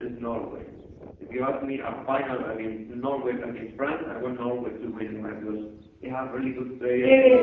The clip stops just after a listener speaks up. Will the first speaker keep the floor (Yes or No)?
Yes